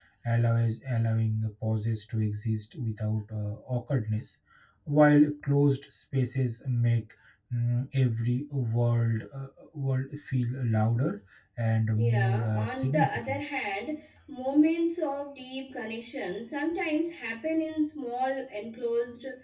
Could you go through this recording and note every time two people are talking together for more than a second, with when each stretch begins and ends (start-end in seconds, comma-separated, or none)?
11.9-13.4